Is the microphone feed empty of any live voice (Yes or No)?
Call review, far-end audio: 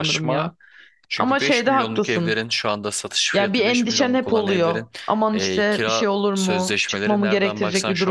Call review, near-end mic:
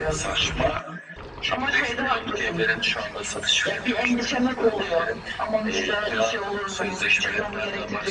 Yes